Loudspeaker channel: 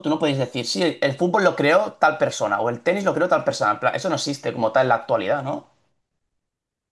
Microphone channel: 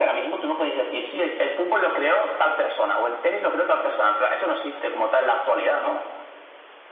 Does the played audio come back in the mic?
Yes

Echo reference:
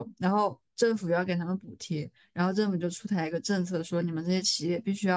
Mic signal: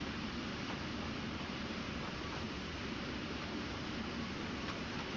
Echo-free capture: Yes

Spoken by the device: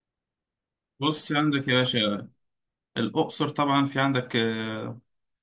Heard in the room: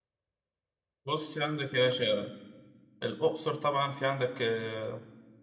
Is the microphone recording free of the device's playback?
No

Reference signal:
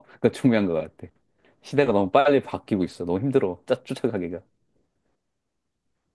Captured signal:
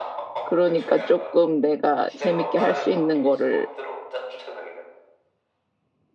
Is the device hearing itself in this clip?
Yes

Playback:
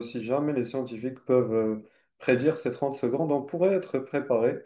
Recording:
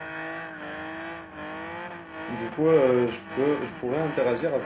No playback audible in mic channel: Yes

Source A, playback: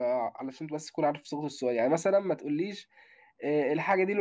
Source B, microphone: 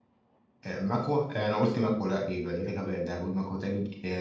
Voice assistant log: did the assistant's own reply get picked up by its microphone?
No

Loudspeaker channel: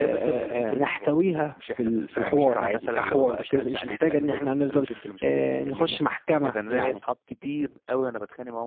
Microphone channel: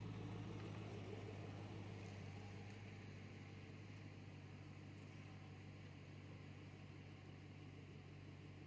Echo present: No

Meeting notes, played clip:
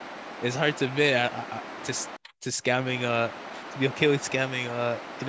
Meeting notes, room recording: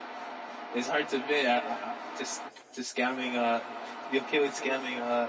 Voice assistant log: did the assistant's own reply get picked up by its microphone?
Yes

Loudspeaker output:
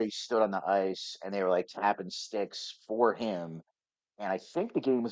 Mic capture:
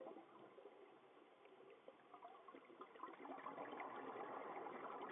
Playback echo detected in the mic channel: No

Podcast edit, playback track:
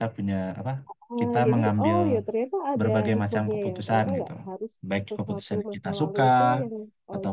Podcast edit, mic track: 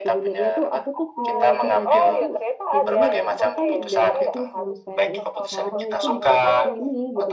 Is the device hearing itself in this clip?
Yes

